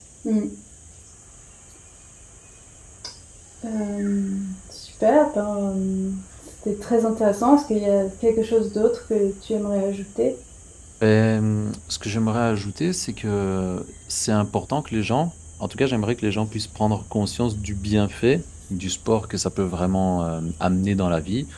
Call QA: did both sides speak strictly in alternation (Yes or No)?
Yes